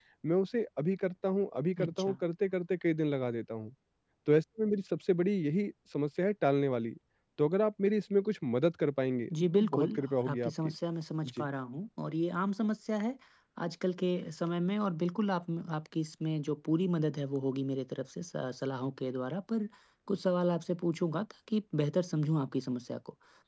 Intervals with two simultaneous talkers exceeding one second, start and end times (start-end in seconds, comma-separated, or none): 9.3-10.7